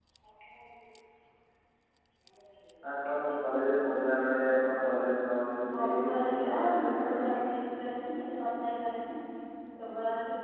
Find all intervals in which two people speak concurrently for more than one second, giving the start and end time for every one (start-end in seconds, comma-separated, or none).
5.8-7.3